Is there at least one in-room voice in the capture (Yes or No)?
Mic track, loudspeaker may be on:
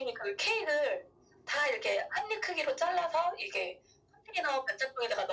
No